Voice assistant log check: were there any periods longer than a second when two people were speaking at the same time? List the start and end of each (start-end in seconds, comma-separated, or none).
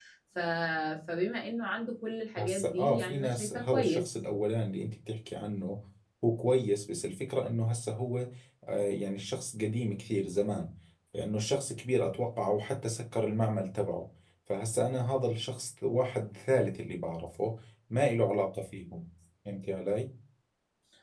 2.4-4.1